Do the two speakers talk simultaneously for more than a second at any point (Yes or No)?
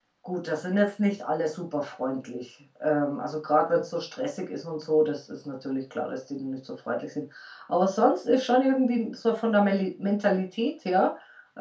No